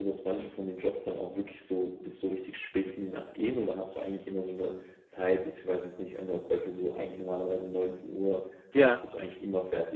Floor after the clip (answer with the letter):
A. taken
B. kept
B